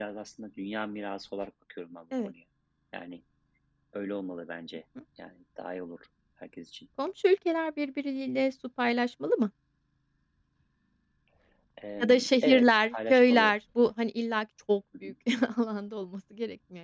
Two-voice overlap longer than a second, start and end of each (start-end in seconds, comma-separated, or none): 12.0-13.5